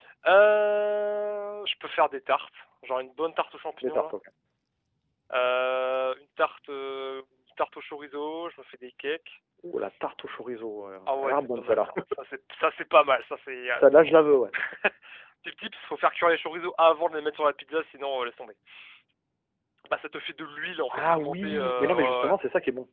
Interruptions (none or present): present